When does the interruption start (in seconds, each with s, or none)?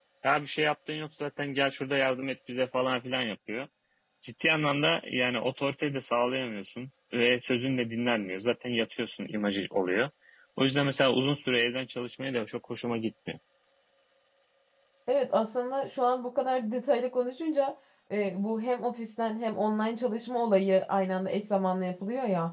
none